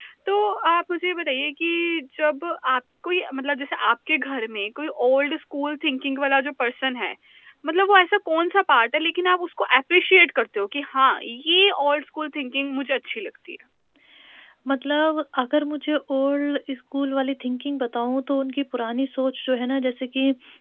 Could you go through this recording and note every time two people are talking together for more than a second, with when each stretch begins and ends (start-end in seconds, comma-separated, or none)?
none